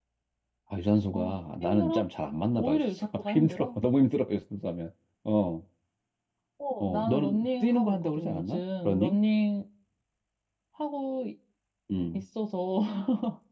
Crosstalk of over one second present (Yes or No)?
Yes